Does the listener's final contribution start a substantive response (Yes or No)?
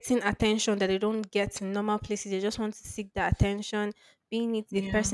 No